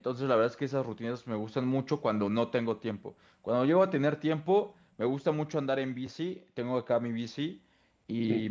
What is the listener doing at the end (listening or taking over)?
listening